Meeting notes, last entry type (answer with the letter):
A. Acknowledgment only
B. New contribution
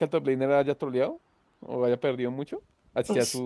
B